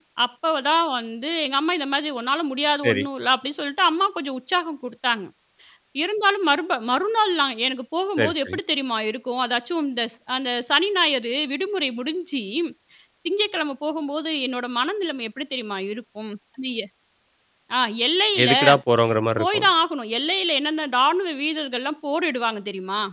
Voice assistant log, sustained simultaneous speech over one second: none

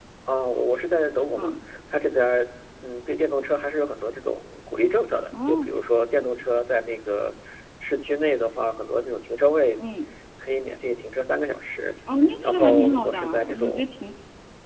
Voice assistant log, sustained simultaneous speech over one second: present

